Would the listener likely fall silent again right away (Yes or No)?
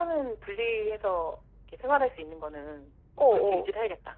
No